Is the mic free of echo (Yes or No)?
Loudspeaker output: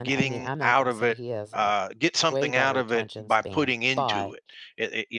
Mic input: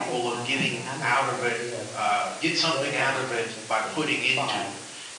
No